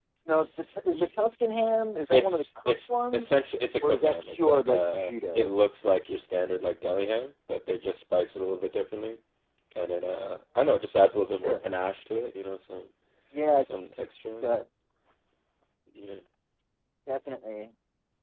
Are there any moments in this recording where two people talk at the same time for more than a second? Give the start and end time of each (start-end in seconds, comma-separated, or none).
2.1-3.3, 3.8-5.5